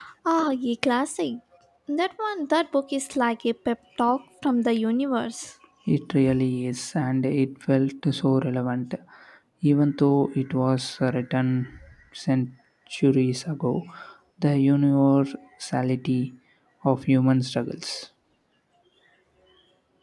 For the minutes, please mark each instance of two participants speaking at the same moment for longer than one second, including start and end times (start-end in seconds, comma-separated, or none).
none